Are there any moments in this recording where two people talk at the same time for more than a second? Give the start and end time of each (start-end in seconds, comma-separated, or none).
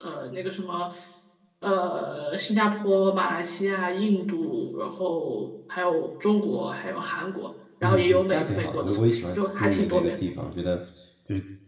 7.8-10.2